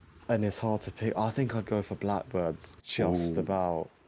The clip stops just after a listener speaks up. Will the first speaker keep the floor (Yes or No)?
No